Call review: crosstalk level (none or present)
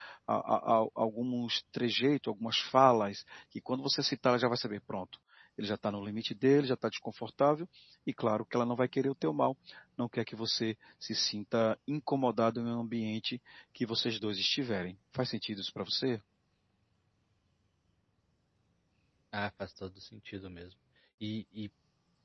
none